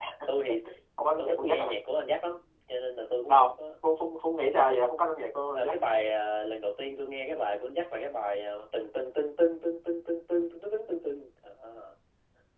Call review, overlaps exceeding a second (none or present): none